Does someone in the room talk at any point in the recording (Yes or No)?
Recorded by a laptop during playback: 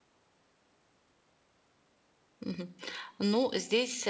Yes